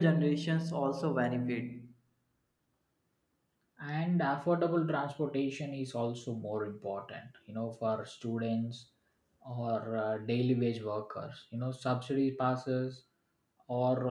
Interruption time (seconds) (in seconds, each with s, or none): none